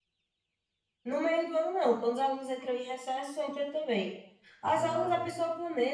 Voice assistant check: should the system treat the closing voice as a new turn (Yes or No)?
No